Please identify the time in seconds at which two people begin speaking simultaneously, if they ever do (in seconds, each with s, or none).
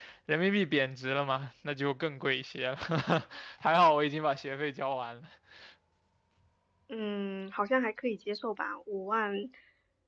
none